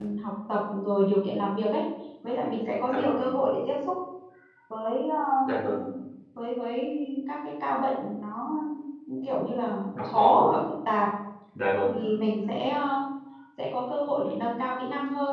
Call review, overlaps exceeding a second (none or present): none